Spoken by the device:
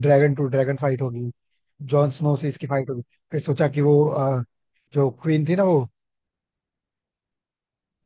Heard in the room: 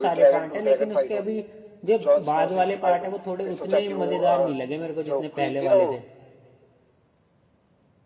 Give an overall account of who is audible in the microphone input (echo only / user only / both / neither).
both